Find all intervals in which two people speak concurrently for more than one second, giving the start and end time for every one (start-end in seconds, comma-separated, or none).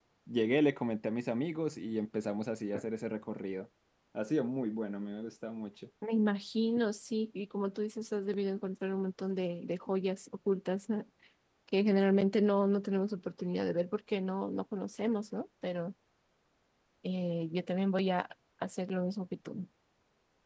none